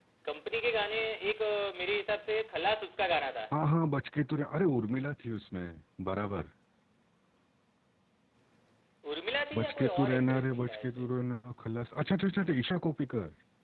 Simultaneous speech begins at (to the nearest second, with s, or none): 10 s